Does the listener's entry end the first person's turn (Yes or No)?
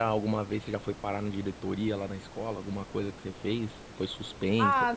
Yes